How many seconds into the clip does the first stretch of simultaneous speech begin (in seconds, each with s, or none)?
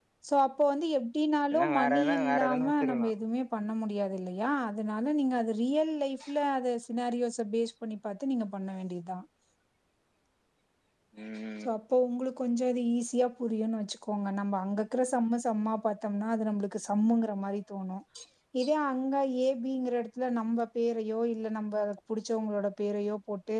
1.5 s